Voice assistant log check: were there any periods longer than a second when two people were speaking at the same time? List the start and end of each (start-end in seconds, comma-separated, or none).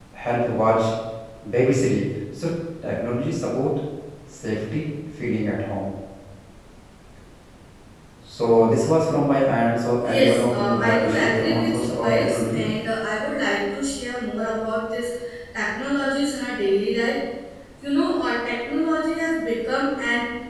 10.0-12.6